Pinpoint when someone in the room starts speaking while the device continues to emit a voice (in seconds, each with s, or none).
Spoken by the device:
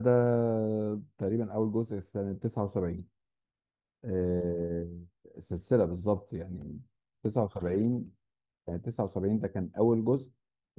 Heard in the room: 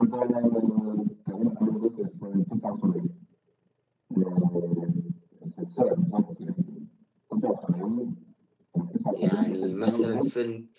9.1 s